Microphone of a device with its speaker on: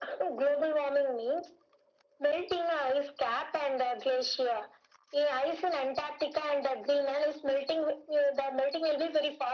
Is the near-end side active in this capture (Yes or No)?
No